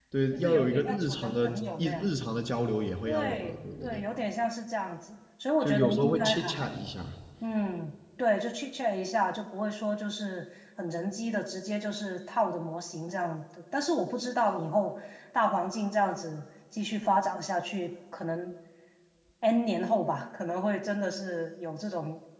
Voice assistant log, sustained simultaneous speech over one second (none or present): present